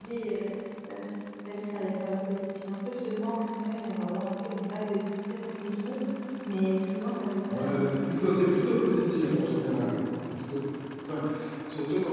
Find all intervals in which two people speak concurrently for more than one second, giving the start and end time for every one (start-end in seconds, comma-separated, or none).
7.5-9.6